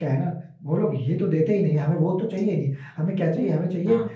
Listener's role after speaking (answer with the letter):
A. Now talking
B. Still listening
B